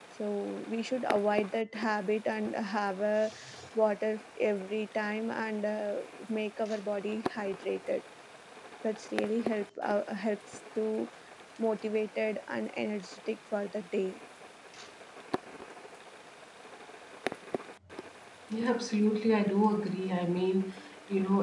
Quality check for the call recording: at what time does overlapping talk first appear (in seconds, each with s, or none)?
none